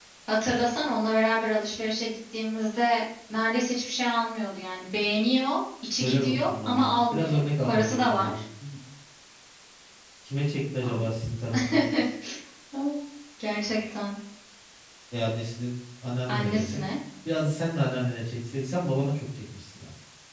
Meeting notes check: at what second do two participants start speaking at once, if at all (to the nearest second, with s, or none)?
6 s